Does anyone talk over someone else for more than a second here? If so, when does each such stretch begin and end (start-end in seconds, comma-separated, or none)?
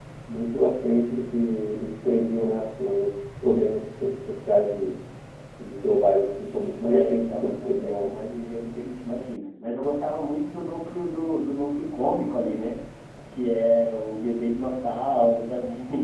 6.9-8.1